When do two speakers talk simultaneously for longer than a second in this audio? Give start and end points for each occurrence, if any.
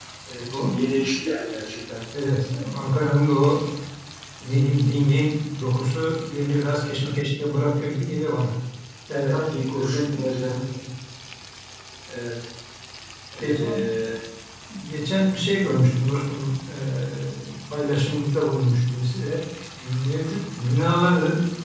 9.1-10.6

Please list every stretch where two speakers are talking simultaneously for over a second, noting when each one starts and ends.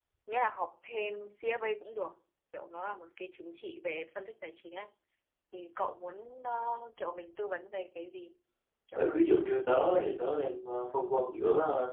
8.9-10.3

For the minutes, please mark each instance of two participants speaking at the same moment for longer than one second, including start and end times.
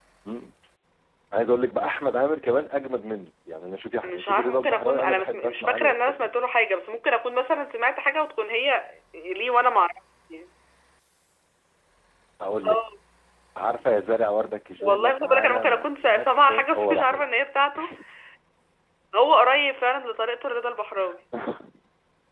4.0-6.3, 14.8-17.3

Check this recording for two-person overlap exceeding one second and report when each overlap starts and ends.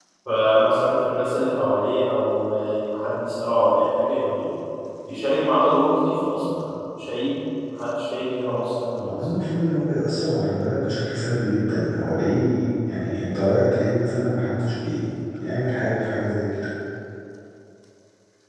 none

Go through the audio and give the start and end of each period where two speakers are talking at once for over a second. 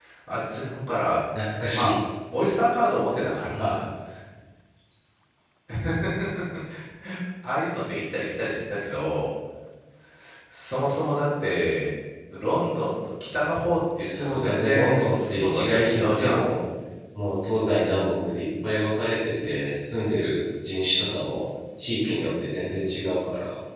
14.0-16.4

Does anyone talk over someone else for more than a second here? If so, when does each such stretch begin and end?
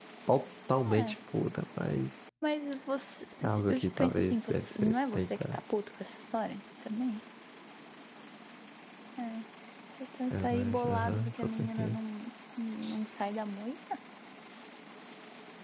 3.7-5.6, 10.3-12.0

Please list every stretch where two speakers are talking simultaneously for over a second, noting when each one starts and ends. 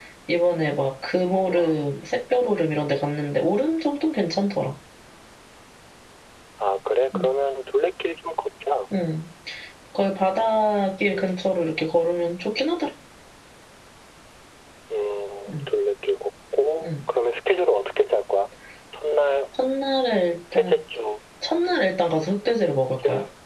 none

